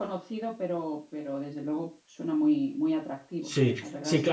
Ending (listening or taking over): taking over